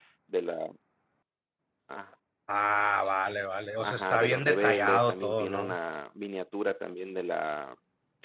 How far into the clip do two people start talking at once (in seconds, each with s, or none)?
3.8 s